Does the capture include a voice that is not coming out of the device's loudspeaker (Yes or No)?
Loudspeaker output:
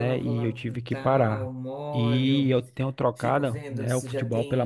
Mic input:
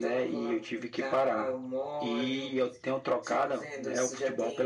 No